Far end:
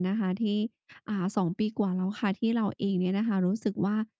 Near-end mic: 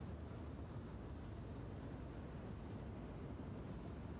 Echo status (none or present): none